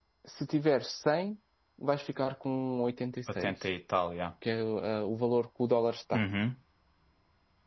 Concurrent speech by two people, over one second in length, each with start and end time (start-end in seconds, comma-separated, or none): none